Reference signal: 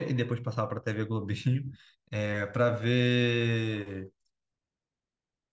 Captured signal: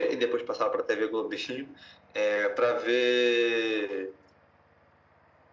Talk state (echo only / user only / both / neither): echo only